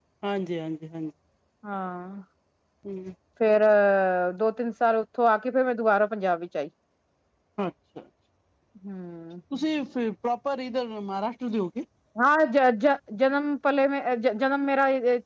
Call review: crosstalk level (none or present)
none